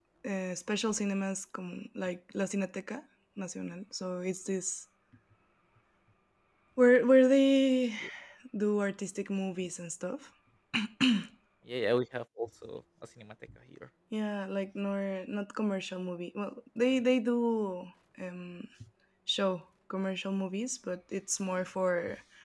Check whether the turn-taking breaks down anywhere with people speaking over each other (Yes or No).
No